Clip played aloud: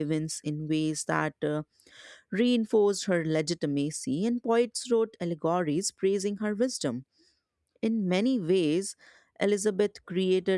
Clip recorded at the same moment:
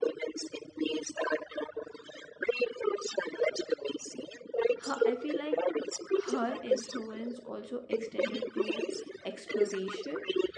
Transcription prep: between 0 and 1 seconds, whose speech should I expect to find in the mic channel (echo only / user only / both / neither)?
echo only